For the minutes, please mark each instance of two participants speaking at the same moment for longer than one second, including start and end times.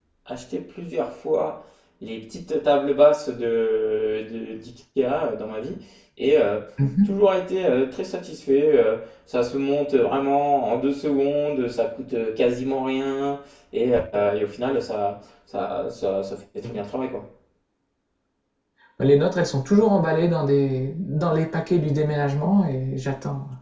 none

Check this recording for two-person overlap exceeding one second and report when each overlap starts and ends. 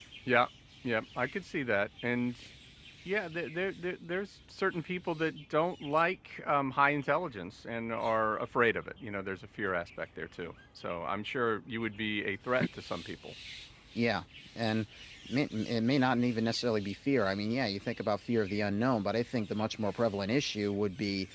none

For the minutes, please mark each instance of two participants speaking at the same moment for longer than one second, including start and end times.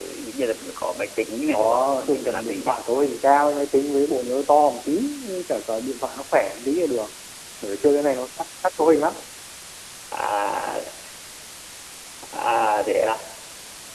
1.5-2.7

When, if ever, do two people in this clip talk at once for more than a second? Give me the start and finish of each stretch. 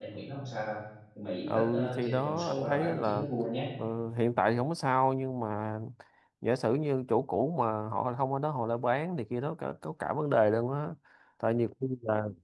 1.4-3.2

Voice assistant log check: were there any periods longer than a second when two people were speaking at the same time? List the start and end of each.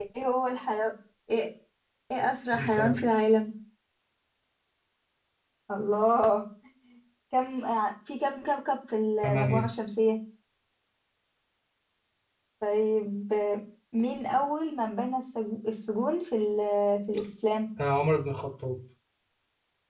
none

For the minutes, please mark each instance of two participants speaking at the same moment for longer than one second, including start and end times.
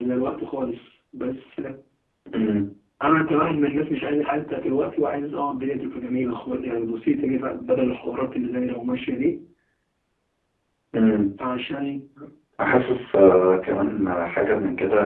none

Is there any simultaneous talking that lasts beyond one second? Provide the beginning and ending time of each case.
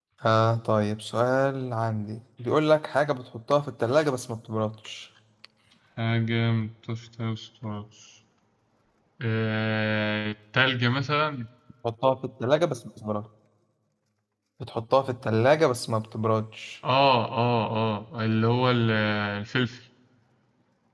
none

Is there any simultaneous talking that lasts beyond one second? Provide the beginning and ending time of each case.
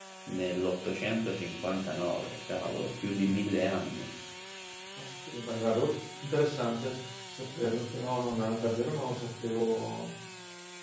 none

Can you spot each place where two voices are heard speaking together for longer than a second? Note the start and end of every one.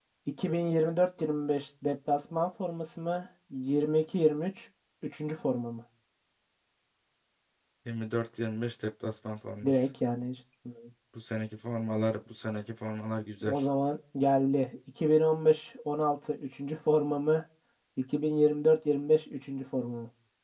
none

